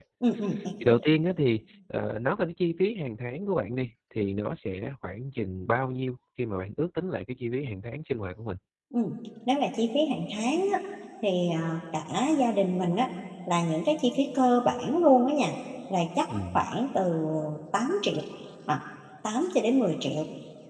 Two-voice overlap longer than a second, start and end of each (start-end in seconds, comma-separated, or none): none